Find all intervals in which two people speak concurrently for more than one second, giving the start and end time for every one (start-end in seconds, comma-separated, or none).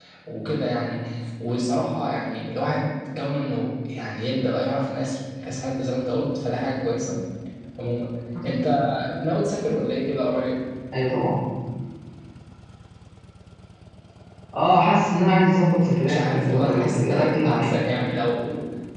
16.0-17.7